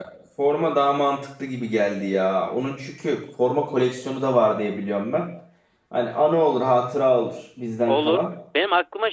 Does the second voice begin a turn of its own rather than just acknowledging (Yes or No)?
Yes